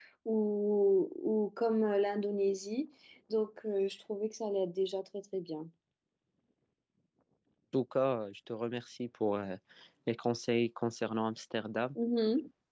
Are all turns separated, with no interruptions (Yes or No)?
Yes